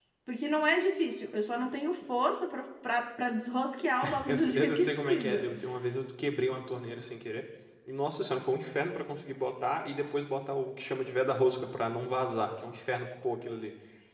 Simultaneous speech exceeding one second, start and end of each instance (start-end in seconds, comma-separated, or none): 4.3-5.5